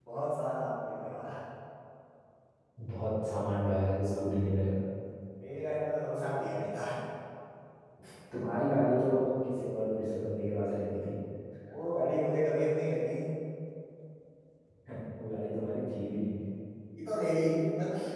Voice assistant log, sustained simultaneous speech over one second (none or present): none